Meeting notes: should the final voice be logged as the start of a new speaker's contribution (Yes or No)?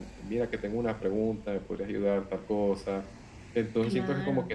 No